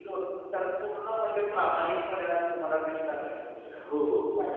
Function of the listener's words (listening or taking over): taking over